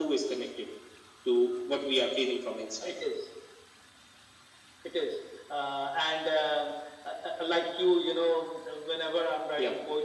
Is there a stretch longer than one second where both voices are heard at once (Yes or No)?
No